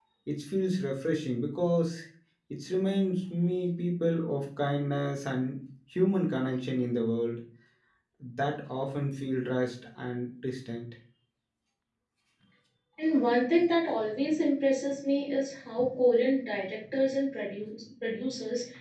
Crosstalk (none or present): none